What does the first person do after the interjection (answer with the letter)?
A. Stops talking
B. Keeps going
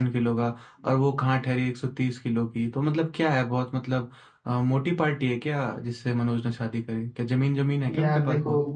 A